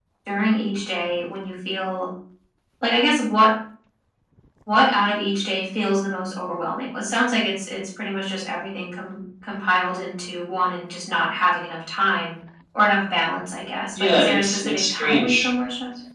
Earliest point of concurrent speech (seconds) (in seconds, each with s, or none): 13.9 s